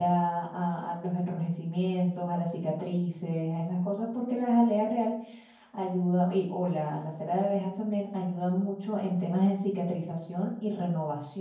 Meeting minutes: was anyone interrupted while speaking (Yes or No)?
No